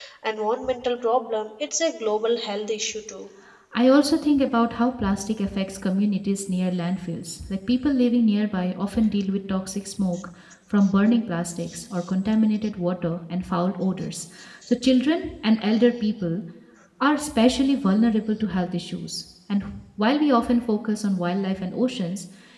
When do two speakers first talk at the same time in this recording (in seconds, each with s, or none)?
none